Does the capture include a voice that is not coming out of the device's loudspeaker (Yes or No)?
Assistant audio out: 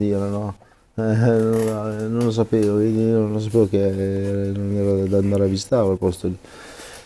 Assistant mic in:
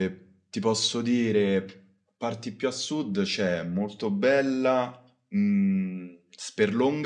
Yes